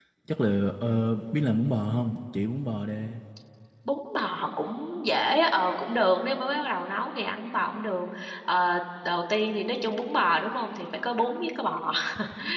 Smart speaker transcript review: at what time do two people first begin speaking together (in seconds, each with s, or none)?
none